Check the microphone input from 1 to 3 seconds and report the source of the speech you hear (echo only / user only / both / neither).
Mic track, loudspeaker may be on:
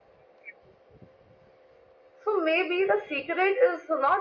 echo only